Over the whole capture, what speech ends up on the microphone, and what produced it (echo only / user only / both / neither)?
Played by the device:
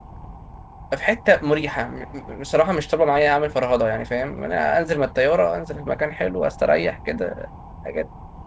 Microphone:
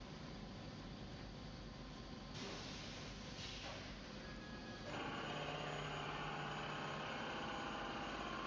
neither